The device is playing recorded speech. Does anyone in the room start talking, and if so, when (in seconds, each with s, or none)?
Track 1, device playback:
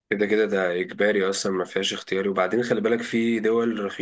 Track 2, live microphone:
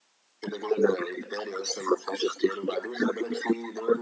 none